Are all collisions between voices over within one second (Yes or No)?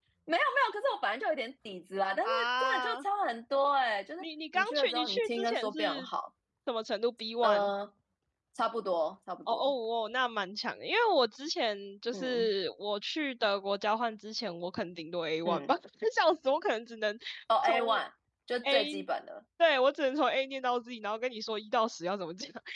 No